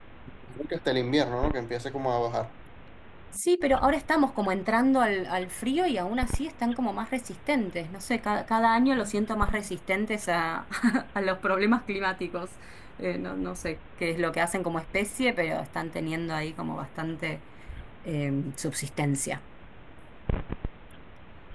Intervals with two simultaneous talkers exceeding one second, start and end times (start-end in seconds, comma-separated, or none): none